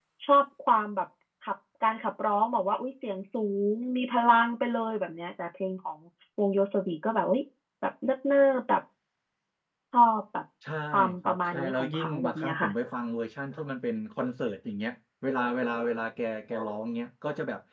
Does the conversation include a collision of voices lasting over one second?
Yes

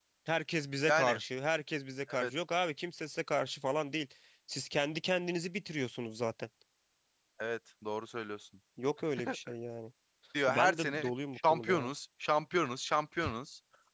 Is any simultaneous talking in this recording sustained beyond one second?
Yes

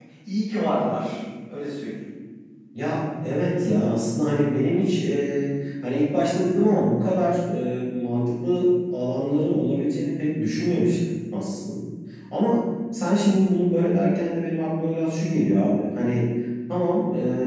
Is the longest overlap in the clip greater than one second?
No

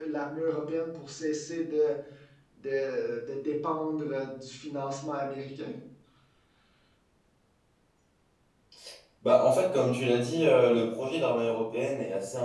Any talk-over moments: No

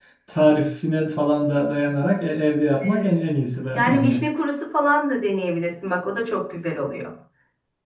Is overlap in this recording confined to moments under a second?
Yes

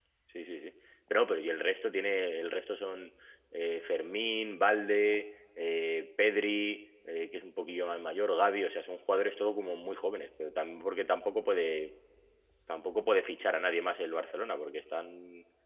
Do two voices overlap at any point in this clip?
No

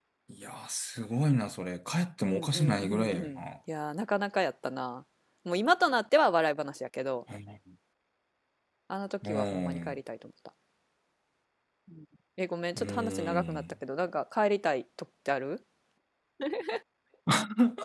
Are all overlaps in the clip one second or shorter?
No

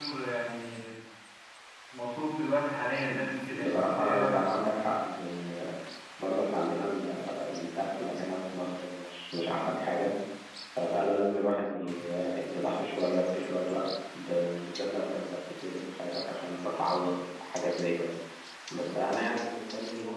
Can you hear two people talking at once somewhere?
Yes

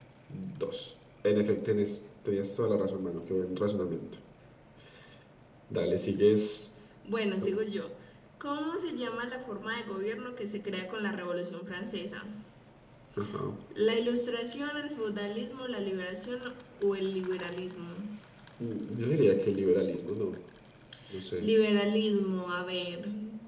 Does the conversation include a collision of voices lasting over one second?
No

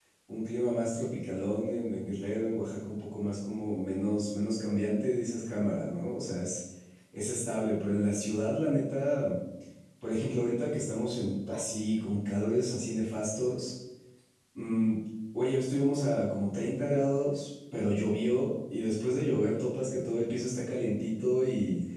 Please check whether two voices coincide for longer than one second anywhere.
No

